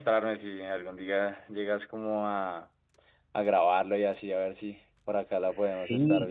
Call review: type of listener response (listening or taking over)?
taking over